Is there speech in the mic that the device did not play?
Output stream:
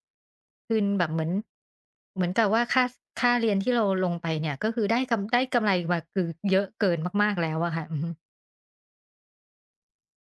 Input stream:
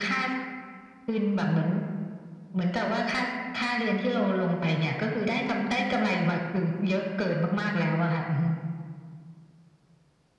No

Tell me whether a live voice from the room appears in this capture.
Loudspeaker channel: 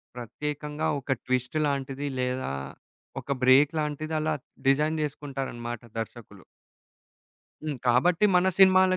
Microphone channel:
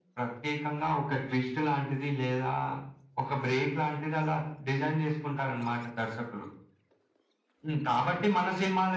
No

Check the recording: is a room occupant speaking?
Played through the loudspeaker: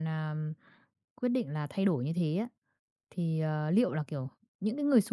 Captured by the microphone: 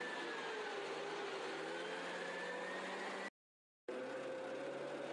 No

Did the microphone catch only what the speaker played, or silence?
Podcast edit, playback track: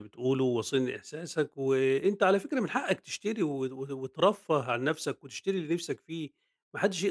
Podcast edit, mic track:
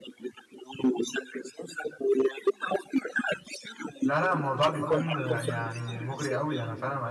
No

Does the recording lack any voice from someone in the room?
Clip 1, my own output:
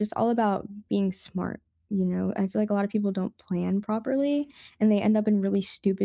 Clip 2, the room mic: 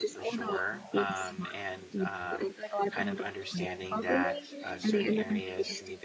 No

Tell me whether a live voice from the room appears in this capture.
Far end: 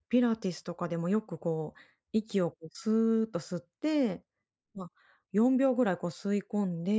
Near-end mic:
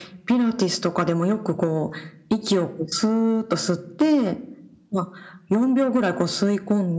No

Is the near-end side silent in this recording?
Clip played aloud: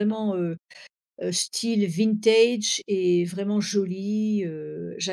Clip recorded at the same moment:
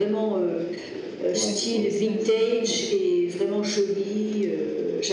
No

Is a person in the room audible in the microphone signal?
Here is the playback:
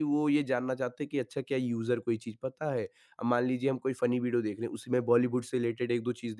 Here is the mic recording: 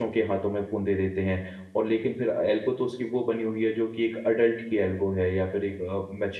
Yes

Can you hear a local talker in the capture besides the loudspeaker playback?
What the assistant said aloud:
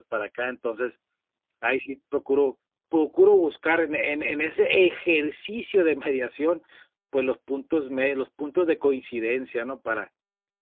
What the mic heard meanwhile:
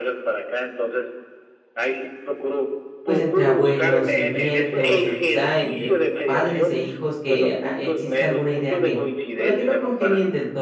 Yes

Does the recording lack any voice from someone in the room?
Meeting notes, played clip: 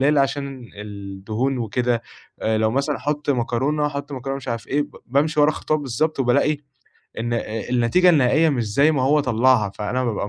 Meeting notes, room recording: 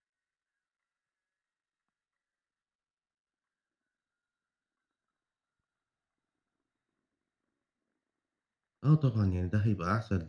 No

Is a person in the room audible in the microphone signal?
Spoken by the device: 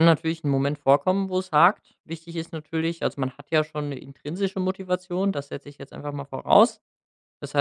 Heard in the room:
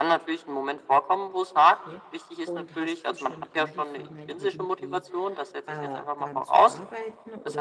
Yes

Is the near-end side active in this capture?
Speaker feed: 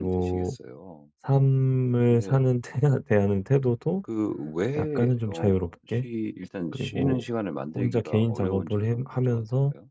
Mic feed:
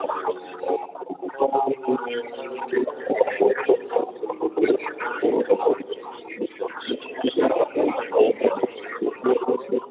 No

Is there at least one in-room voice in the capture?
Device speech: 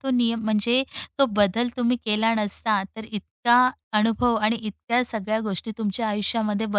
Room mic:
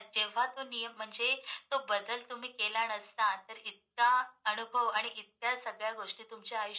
No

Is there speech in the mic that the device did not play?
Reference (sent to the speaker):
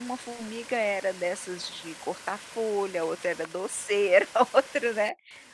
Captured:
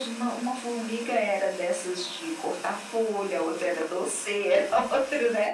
No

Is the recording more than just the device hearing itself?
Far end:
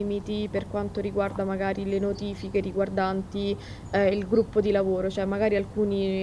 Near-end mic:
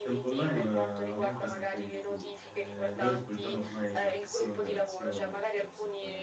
Yes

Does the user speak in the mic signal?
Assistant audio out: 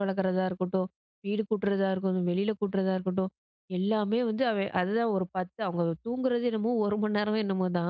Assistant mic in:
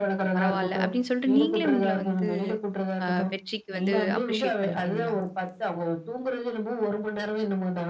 Yes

